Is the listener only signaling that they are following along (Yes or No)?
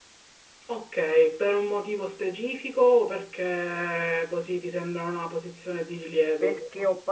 No